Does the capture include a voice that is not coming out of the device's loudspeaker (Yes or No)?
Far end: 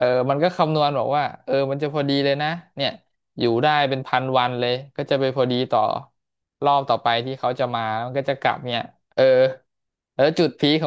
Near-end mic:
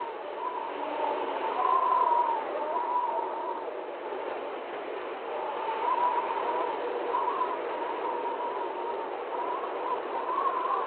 No